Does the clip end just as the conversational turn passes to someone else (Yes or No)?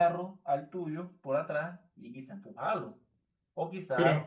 No